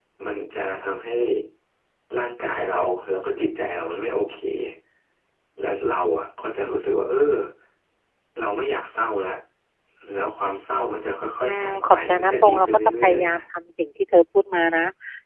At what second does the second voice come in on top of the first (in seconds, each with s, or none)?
11.4 s